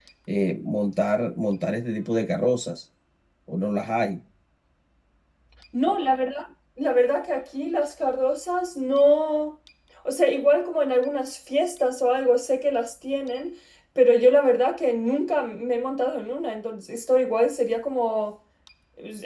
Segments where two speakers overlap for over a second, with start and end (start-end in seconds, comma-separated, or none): none